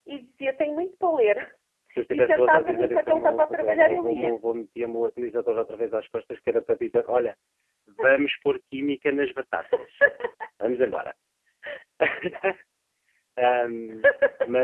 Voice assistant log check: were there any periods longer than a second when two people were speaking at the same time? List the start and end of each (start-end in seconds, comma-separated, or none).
2.1-4.3